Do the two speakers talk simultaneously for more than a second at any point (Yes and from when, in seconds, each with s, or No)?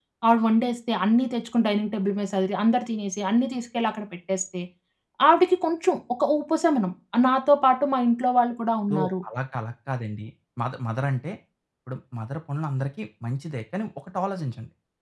No